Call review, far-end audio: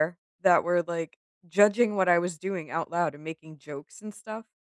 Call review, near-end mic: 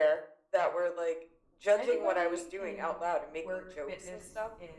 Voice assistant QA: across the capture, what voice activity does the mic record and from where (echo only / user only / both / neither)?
both